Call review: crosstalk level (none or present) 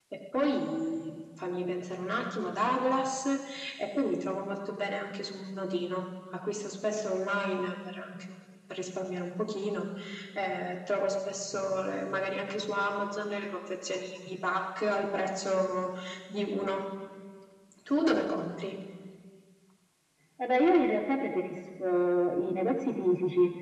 none